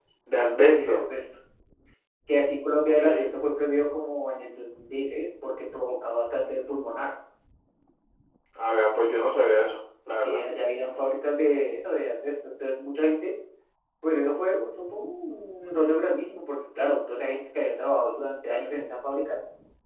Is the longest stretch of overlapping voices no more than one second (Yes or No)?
Yes